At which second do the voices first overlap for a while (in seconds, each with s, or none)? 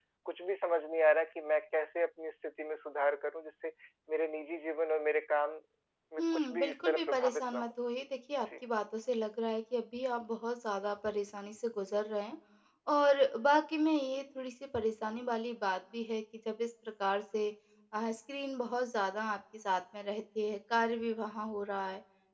6.2 s